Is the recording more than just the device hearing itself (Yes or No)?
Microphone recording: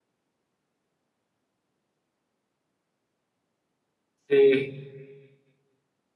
Yes